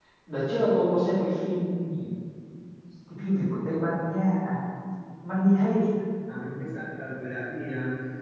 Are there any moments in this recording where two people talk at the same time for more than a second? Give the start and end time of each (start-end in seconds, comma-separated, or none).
none